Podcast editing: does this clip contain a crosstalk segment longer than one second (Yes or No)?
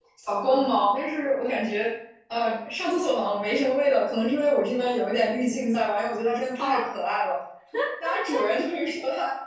No